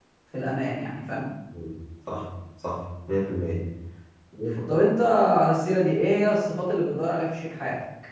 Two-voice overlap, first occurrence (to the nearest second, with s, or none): none